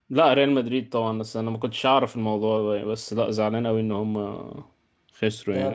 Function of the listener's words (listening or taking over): taking over